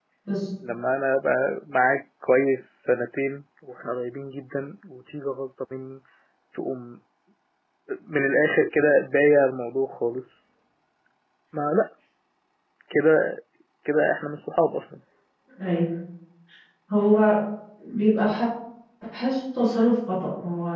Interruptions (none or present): none